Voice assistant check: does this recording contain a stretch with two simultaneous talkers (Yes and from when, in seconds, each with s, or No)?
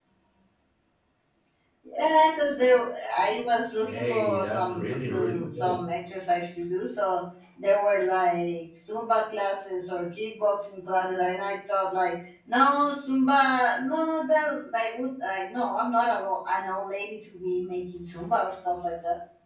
Yes, from 3.8 s